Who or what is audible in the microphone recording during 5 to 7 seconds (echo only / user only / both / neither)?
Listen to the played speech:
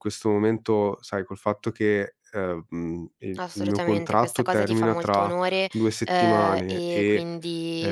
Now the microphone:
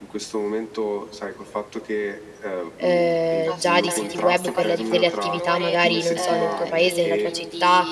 both